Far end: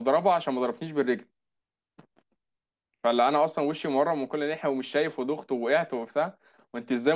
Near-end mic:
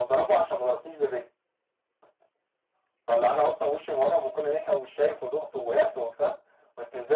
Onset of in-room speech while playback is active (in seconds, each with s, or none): none